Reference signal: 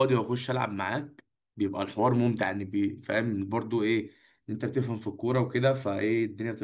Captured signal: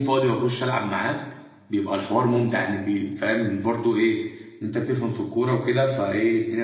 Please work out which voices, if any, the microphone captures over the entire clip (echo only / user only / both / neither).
echo only